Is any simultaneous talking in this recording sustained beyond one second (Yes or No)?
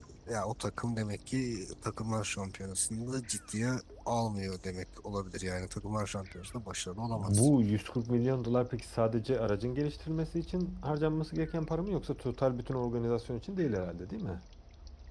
No